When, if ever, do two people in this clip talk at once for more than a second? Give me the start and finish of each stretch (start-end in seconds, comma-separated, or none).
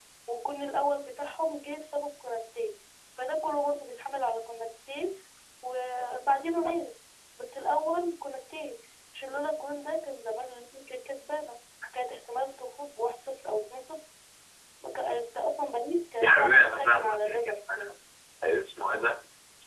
16.2-17.5